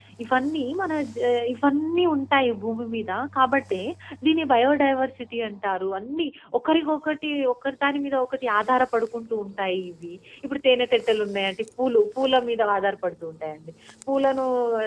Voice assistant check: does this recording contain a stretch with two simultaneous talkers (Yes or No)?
No